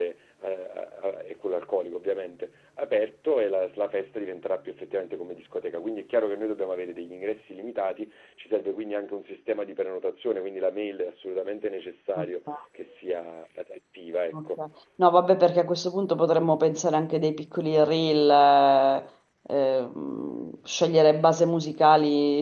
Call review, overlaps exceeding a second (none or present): none